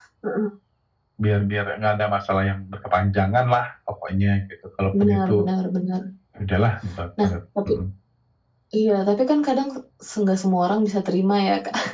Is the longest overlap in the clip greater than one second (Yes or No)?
No